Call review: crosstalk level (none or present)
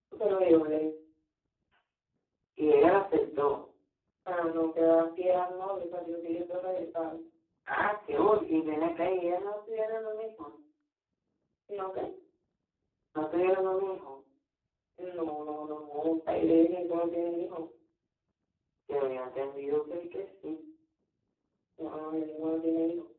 none